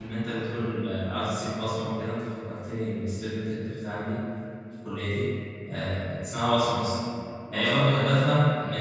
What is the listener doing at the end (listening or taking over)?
listening